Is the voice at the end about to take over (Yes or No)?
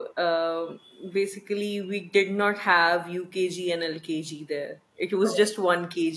No